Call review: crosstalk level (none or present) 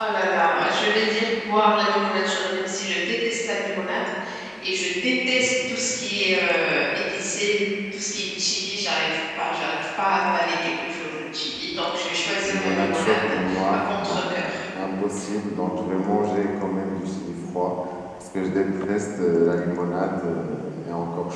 present